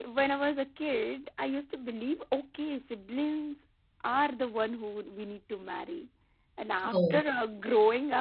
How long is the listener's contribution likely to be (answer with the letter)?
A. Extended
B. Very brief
B